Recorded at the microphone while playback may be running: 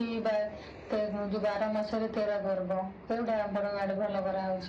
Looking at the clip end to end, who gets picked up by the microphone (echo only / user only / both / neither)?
echo only